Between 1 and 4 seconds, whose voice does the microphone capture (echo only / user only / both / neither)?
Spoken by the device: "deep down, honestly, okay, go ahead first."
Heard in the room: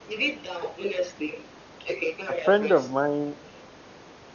both